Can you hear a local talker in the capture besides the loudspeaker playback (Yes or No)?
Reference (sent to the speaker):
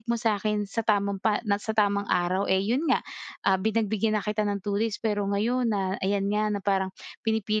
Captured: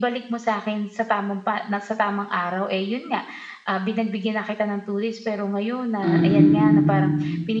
Yes